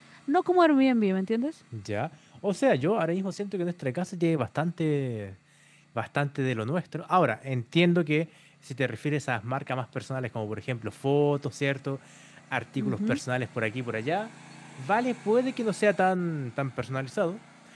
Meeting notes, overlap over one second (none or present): none